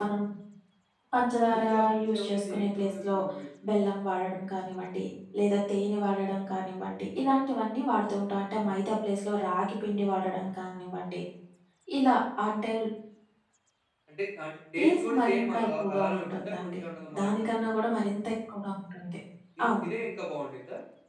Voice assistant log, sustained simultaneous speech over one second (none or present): present